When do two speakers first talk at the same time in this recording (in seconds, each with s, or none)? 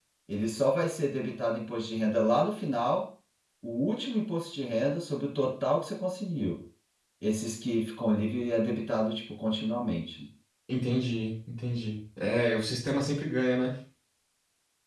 none